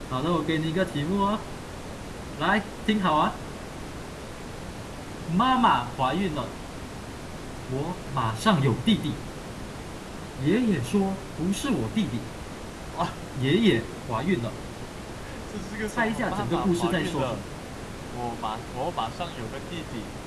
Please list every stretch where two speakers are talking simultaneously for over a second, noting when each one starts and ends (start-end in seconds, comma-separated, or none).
15.9-17.4